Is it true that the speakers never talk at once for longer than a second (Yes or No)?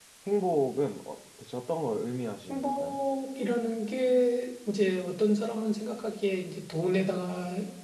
Yes